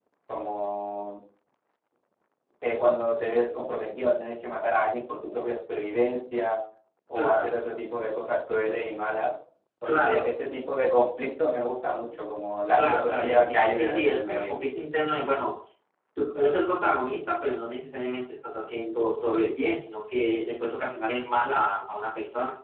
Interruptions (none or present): present